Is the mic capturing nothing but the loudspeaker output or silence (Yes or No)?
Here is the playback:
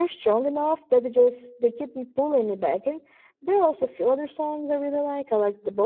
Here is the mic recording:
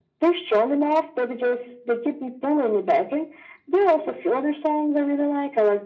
Yes